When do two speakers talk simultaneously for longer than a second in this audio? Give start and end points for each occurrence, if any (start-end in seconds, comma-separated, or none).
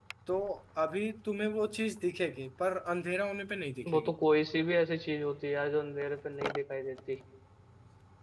none